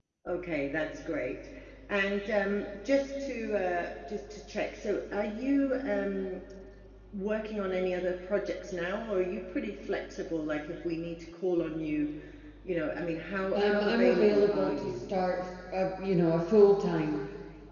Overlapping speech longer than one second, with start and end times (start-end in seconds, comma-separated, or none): 13.5-15.1